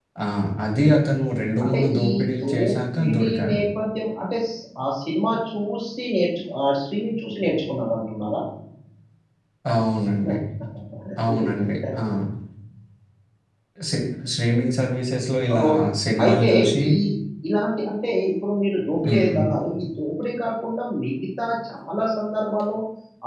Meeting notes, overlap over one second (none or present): present